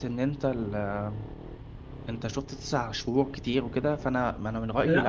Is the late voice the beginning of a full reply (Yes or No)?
Yes